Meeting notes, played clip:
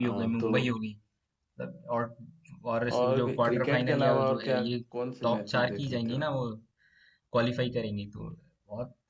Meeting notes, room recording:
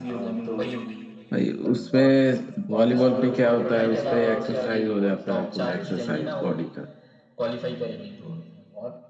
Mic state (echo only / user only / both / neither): both